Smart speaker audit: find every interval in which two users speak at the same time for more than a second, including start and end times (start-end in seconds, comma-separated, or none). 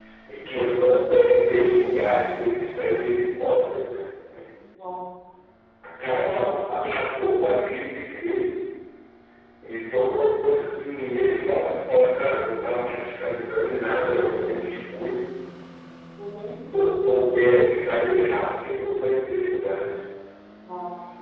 6.0-7.5